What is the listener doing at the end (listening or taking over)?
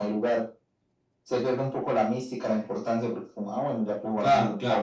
taking over